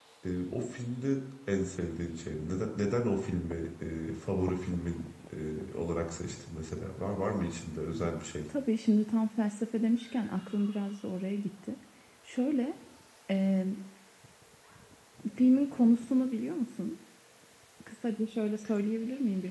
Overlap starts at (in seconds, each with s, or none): none